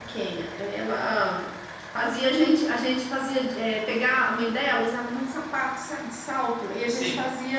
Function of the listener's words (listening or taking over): listening